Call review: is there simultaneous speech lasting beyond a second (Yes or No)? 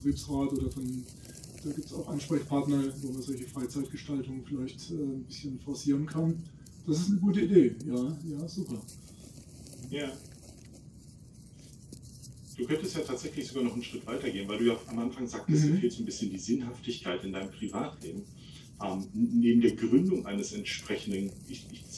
No